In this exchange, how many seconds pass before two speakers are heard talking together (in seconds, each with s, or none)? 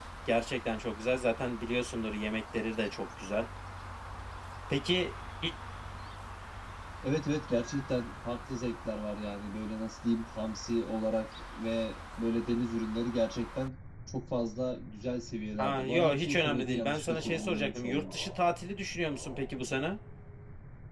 15.6 s